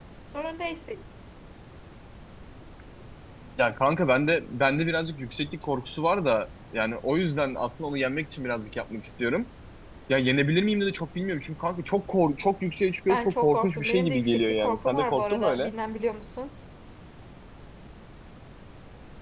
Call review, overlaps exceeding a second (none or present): present